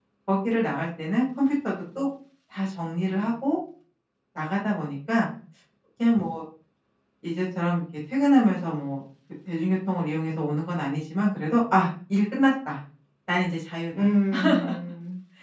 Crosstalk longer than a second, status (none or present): none